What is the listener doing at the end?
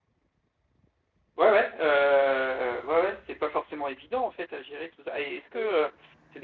listening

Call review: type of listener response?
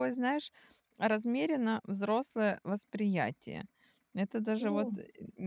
listening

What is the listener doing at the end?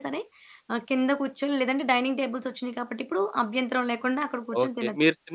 taking over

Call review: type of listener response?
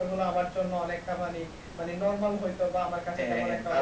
taking over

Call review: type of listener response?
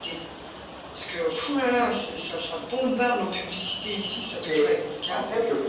taking over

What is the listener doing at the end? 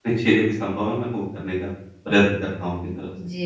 taking over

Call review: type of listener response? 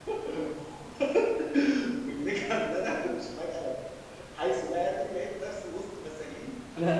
taking over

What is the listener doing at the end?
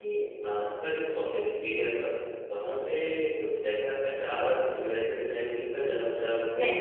listening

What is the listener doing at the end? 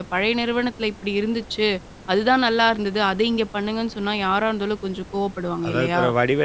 taking over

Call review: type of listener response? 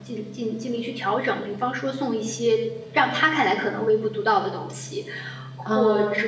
listening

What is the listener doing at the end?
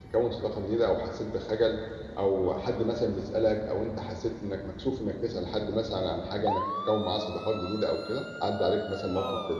taking over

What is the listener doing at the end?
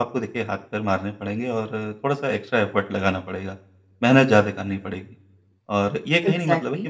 listening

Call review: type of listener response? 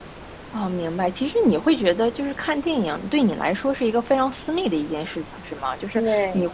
listening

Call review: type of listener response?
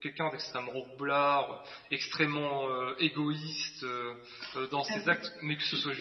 taking over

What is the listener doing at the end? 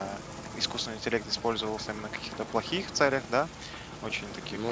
listening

